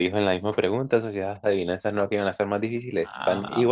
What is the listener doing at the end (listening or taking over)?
taking over